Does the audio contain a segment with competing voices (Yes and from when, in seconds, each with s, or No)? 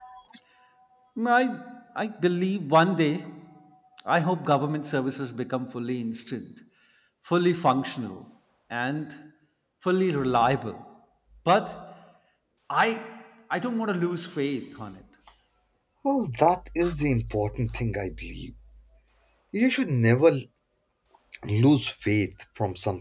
No